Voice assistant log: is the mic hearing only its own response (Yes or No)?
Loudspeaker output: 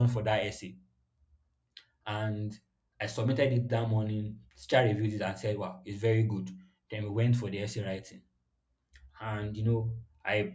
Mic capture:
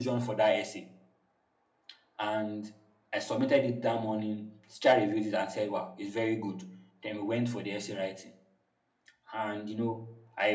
Yes